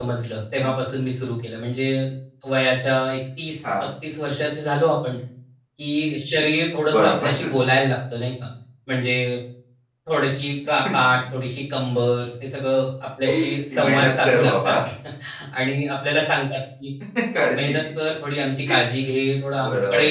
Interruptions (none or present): present